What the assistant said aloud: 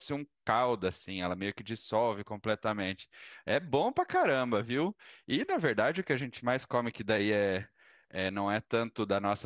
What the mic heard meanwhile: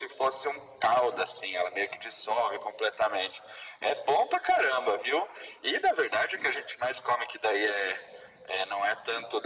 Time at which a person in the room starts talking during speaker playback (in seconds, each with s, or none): none